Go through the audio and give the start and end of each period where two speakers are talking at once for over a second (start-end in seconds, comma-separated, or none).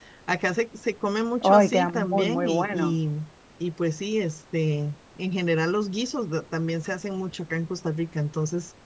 1.4-2.9